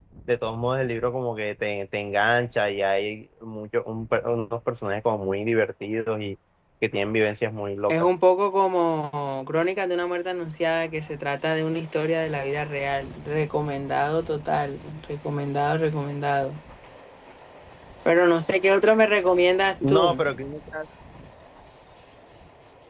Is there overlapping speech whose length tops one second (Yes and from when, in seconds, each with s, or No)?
No